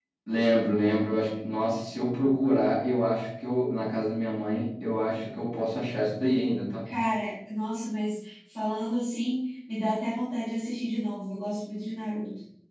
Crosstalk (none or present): none